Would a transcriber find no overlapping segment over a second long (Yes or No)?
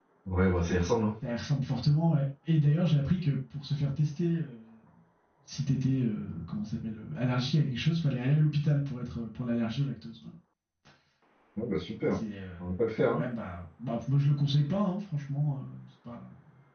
Yes